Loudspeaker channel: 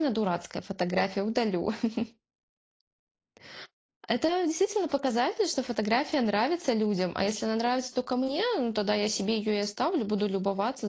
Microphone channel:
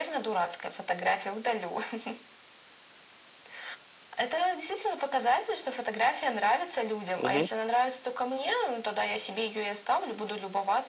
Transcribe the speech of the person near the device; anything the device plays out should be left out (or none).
Мгм.